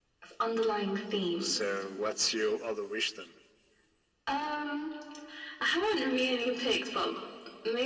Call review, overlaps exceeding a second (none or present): none